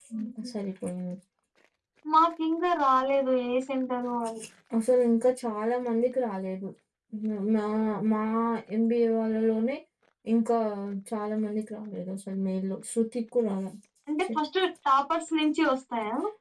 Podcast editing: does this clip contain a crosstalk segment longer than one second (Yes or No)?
No